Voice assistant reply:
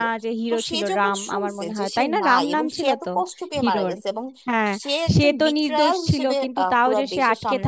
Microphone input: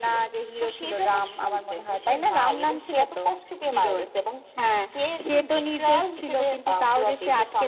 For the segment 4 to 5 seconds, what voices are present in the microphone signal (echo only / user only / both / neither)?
echo only